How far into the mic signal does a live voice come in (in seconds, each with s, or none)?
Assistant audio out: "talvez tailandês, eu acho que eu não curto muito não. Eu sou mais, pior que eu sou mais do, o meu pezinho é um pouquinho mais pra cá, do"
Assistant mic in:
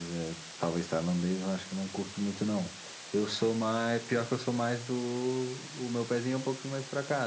none